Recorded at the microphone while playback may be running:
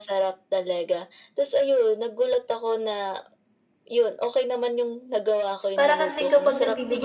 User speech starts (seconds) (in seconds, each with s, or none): 5.8 s